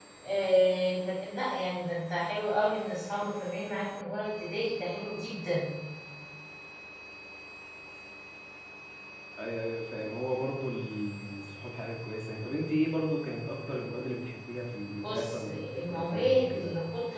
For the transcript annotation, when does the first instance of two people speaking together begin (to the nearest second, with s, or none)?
15 s